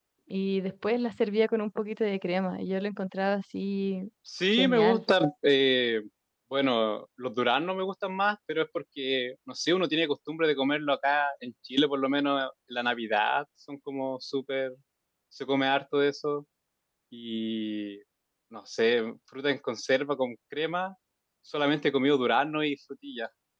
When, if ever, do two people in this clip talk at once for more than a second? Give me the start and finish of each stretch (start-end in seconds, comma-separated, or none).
none